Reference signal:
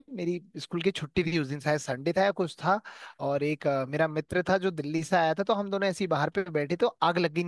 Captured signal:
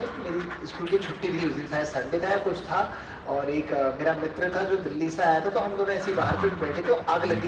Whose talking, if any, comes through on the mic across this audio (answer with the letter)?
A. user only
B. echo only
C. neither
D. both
D